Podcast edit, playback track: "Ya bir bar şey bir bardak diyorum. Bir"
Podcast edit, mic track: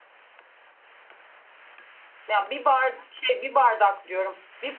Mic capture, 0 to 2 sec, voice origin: neither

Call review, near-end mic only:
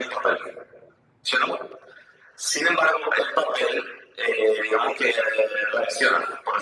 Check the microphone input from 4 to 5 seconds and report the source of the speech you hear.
echo only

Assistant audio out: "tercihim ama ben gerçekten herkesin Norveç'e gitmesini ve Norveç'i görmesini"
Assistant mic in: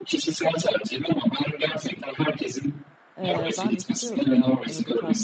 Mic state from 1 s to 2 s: echo only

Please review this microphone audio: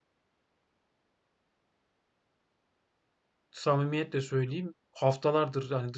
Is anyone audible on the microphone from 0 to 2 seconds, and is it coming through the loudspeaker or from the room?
neither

